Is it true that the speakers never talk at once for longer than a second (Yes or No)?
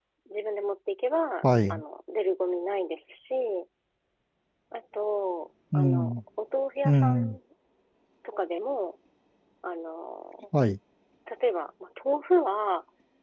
Yes